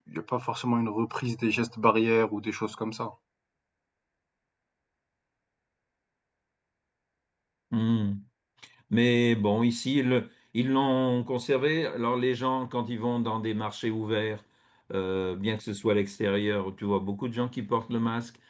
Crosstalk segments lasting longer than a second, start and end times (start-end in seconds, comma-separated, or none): none